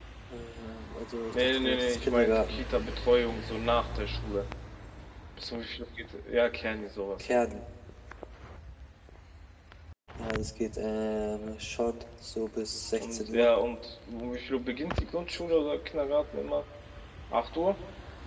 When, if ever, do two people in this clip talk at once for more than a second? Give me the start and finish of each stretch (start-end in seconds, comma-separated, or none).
1.3-2.6